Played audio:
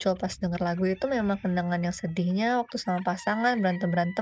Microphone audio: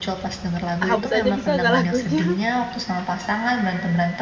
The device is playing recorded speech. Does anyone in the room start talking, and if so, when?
0.8 s

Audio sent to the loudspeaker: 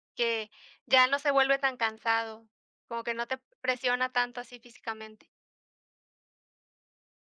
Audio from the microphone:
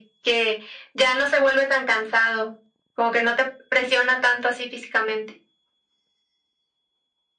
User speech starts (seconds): none

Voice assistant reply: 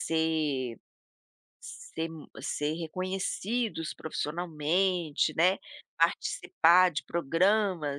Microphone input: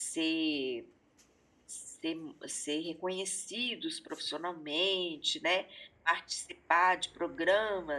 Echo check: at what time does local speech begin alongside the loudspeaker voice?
none

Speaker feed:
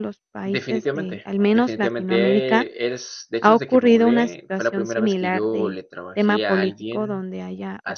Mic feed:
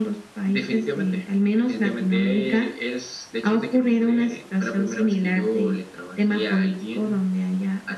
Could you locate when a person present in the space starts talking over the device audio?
none

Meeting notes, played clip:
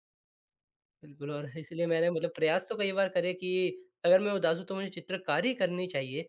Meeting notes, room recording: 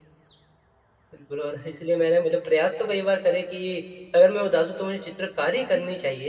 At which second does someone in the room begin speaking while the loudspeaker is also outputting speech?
none

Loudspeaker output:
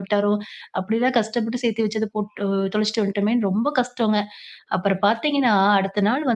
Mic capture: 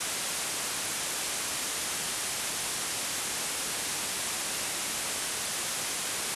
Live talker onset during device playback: none

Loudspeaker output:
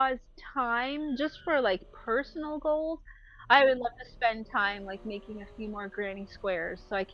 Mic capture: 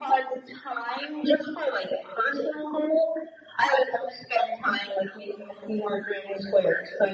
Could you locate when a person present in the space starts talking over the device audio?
none

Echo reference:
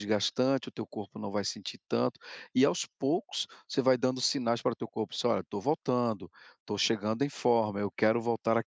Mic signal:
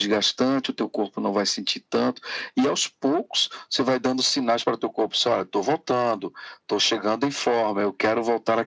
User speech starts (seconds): none

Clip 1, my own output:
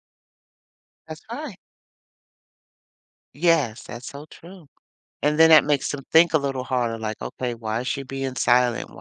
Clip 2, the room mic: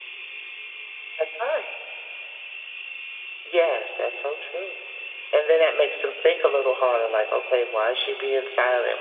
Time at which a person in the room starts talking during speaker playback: none

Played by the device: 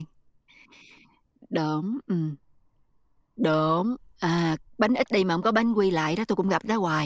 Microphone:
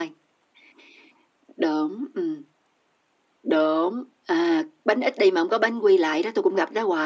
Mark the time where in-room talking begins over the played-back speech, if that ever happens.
none

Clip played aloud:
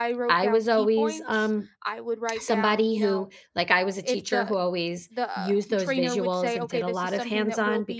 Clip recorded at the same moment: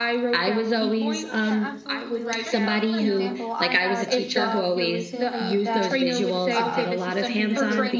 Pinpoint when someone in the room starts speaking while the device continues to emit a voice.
1.4 s

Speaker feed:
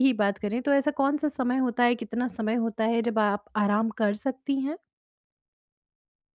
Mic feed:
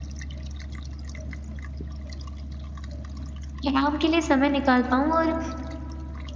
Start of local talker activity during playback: 3.7 s

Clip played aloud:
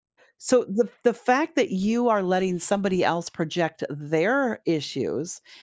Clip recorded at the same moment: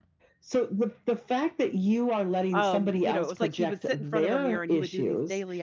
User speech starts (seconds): 2.5 s

